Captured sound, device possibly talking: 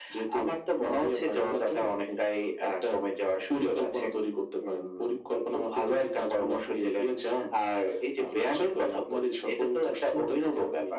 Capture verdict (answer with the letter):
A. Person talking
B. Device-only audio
B